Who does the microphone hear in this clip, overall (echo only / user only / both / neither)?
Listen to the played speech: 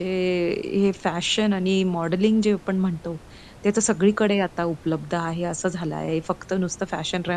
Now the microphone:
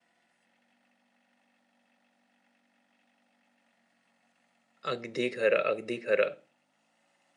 user only